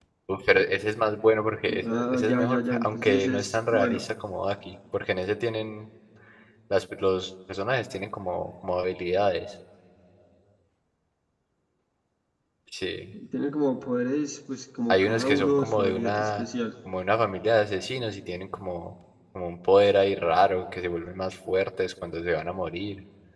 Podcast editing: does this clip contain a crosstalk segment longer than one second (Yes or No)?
Yes